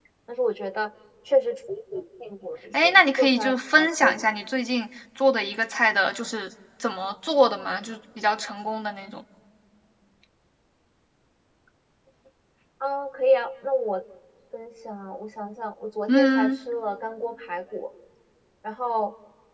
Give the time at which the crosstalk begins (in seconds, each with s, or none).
2.8 s